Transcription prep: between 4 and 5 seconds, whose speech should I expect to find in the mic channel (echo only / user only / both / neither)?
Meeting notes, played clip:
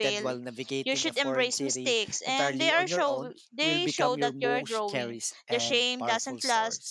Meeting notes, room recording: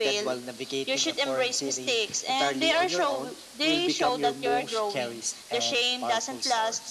echo only